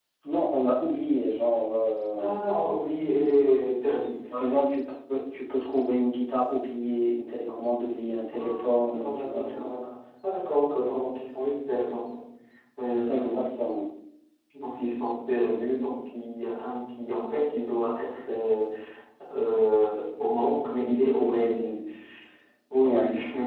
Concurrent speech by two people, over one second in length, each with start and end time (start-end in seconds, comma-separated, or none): 8.3-9.6